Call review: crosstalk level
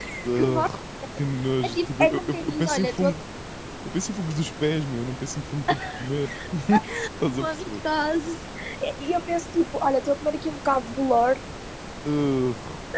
present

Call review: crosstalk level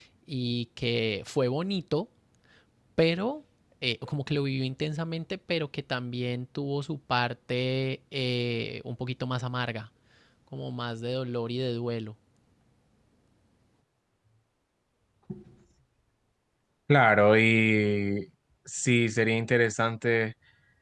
none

